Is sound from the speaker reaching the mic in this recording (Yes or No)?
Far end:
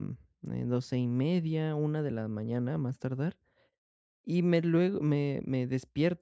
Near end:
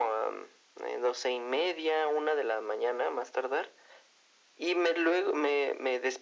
Yes